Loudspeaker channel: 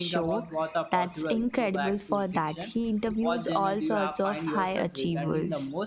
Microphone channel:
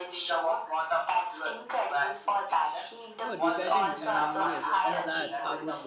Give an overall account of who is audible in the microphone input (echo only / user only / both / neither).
both